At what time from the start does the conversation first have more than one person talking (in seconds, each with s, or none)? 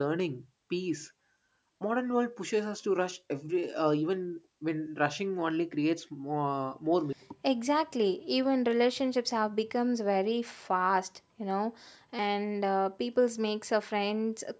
none